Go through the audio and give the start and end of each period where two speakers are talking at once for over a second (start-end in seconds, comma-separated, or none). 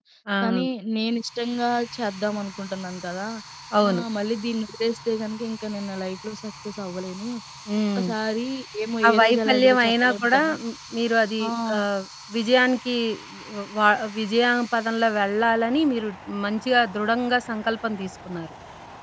9.1-10.5